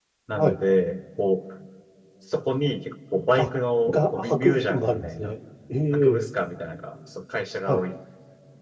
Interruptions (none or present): present